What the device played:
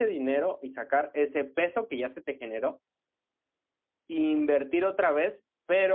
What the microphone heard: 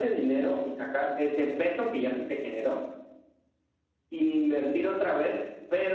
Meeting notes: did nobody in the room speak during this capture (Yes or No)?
Yes